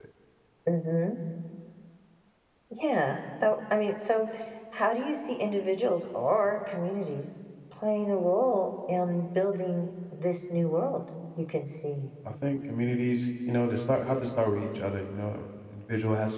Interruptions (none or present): none